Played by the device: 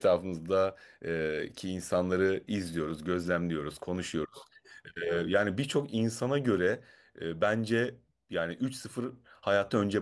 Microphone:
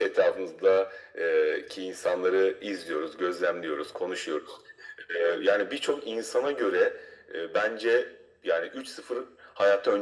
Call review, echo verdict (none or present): present